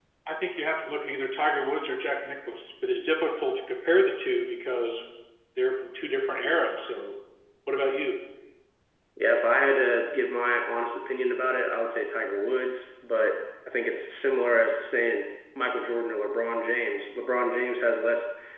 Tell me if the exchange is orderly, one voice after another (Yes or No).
Yes